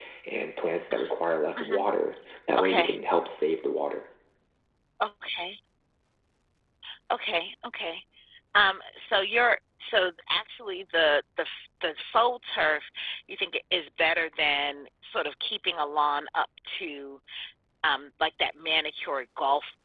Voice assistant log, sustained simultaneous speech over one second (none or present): none